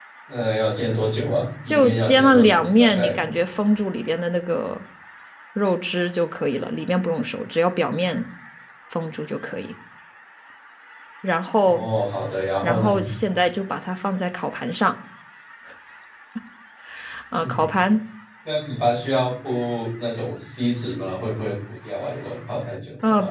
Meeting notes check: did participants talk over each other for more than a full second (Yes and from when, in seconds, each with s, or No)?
Yes, from 1.7 s